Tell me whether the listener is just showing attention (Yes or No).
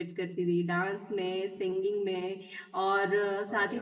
Yes